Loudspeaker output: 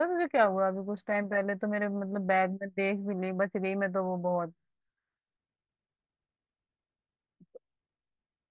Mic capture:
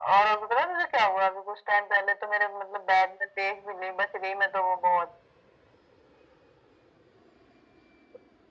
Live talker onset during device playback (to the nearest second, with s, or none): none